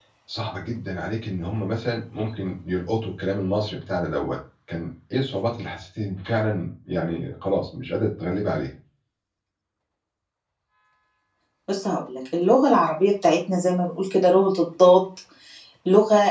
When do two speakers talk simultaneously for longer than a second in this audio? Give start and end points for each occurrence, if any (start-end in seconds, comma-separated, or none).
none